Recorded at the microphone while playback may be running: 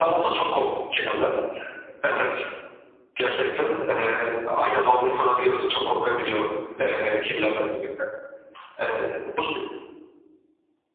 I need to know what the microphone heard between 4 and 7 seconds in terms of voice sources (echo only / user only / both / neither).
echo only